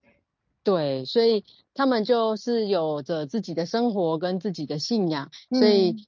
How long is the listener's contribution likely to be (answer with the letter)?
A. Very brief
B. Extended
A